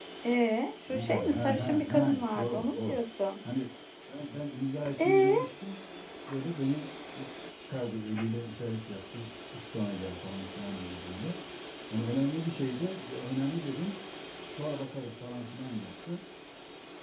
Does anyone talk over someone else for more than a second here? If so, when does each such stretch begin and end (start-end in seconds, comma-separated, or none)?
0.9-3.0